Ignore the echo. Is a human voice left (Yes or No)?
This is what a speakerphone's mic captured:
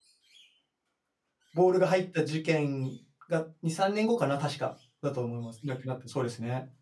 Yes